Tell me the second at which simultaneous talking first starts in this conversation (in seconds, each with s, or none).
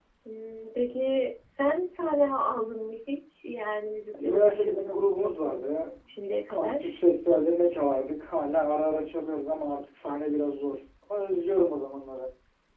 4.2 s